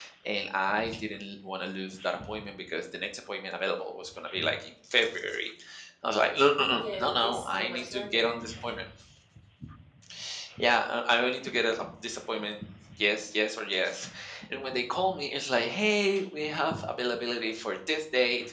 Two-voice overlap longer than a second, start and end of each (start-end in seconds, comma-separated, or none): 6.7-8.4